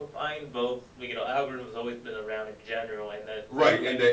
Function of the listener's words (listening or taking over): taking over